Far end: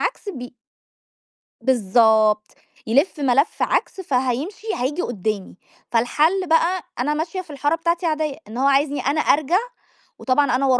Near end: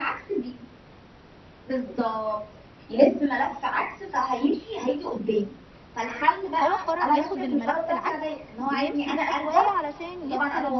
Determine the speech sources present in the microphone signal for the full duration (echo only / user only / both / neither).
both